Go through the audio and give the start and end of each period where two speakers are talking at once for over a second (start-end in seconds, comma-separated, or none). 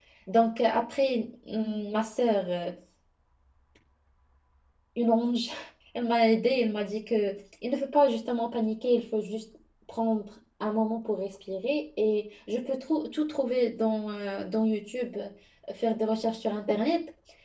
none